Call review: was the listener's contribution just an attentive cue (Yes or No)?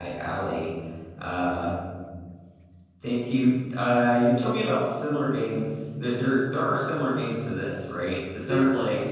Yes